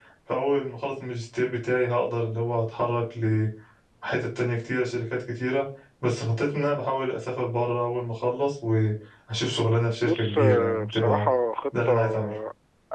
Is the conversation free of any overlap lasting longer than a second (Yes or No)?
No